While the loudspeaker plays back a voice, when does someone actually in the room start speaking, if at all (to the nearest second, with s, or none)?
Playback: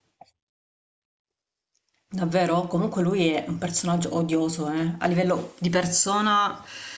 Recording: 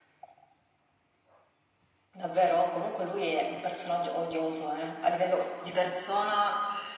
none